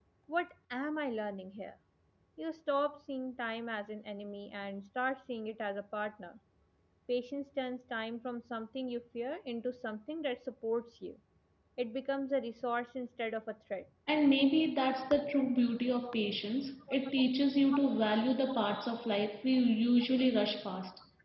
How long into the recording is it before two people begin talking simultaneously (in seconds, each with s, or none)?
none